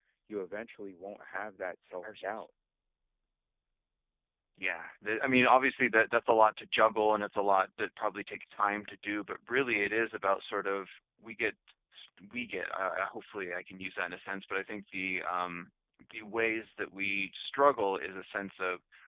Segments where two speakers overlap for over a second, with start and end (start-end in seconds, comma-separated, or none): none